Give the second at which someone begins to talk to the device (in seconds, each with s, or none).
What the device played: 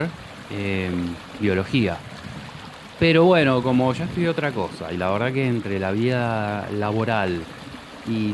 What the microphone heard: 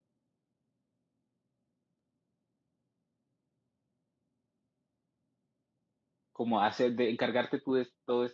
6.3 s